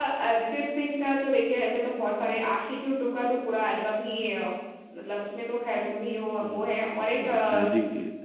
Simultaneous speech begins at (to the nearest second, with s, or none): 6 s